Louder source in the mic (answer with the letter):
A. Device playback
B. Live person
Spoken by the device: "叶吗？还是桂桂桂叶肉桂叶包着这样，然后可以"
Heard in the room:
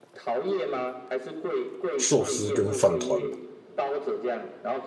B